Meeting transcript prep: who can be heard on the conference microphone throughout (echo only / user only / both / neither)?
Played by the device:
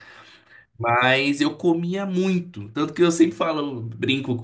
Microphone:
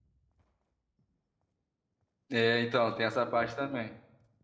user only